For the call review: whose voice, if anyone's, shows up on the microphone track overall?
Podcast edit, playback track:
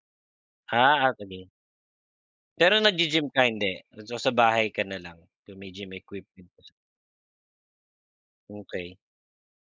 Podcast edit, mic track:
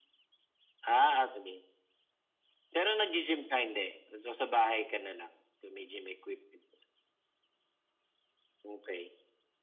echo only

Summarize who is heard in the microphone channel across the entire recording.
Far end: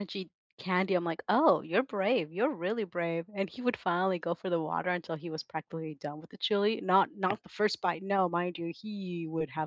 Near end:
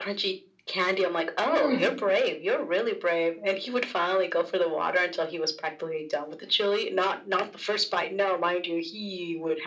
both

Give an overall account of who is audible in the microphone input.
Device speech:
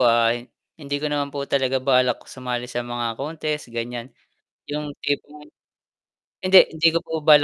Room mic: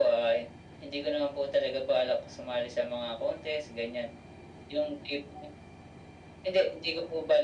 echo only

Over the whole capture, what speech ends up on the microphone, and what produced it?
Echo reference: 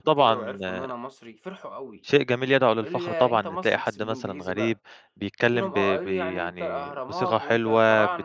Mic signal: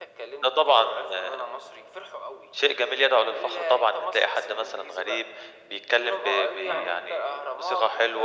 both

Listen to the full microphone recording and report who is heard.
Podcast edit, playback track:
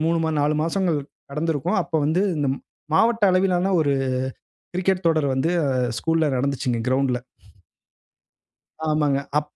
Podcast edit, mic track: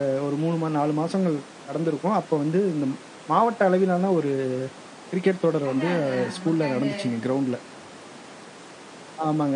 both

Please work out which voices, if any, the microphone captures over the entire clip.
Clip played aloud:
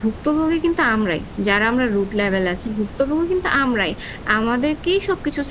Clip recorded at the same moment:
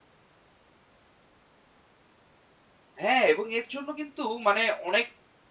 user only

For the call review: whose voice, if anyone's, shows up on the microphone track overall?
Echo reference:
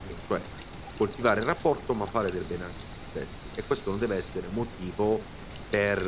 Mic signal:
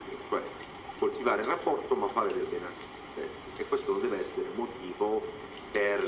echo only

